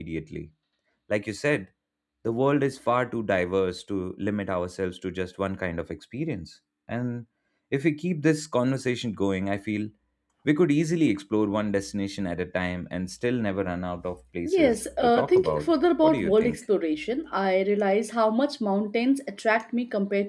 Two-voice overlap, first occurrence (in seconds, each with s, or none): 14.4 s